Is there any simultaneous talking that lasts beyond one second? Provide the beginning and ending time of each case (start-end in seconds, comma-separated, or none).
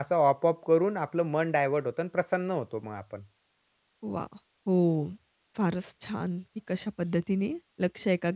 none